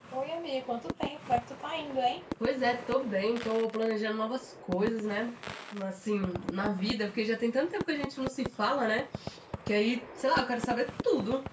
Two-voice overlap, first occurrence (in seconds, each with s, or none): none